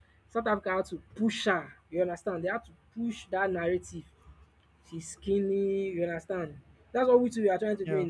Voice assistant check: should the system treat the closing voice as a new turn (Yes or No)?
No